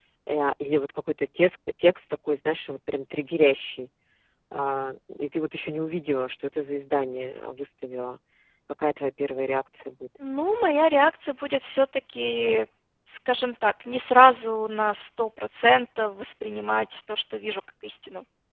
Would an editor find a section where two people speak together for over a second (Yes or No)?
No